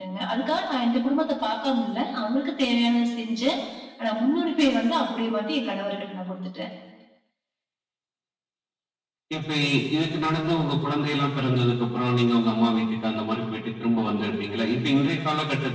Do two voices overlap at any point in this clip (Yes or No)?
No